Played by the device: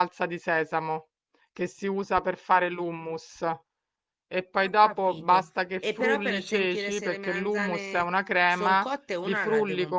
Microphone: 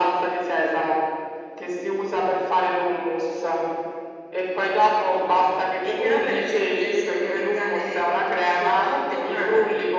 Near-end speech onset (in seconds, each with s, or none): none